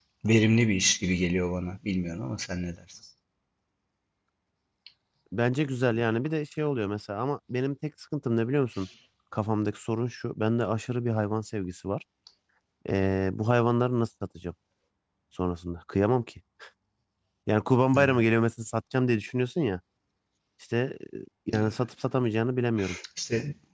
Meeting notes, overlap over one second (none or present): none